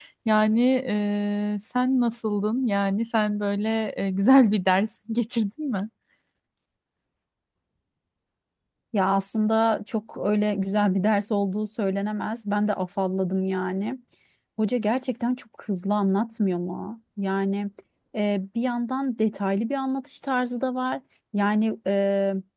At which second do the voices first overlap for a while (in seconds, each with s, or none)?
none